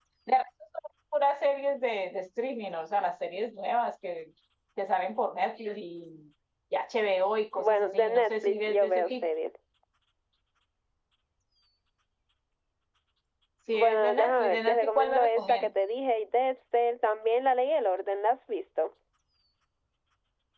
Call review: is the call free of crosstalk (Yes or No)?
No